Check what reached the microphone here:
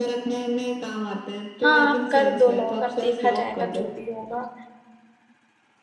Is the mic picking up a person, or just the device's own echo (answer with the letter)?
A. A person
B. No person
A